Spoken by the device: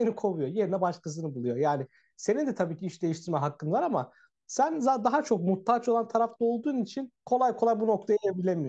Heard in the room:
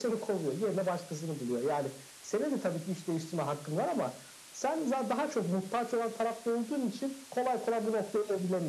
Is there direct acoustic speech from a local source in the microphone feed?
No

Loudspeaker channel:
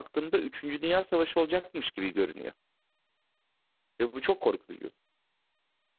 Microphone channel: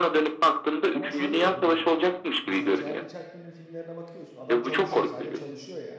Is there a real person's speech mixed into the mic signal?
Yes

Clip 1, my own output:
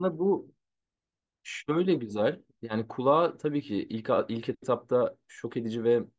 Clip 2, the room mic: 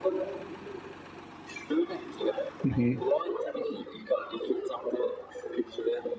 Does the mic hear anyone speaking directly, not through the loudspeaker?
Yes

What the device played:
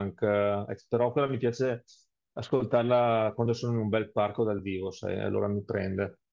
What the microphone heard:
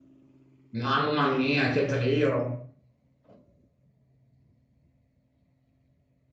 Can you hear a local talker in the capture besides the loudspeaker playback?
Yes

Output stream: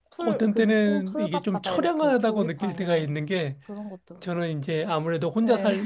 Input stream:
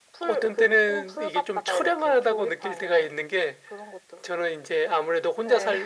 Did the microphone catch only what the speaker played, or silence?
Yes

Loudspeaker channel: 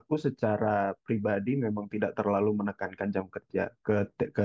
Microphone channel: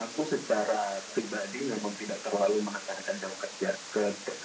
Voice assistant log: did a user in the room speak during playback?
No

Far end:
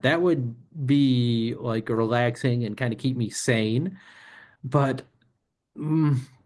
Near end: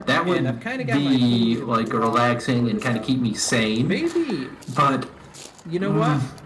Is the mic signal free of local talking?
No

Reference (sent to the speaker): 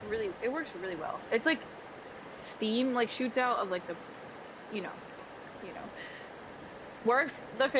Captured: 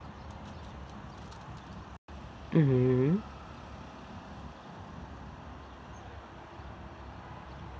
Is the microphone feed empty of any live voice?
No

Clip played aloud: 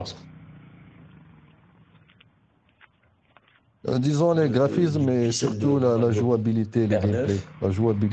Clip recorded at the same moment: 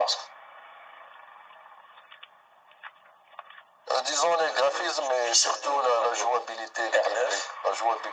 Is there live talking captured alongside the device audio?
No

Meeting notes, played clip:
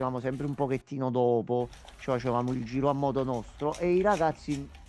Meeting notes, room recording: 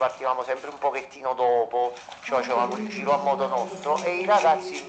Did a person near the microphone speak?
Yes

